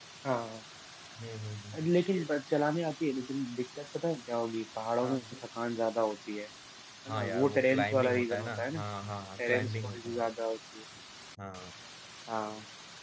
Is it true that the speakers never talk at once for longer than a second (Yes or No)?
No